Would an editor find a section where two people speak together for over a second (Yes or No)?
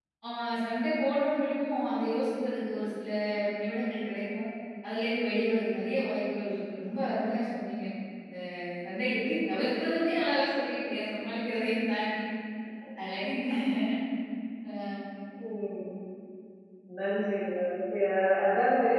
No